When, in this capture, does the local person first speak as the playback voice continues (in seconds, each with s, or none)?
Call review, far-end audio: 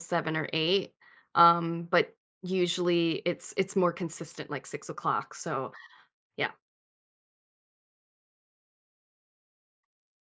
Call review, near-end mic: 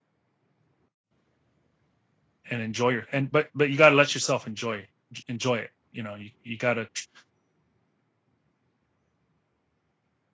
2.5 s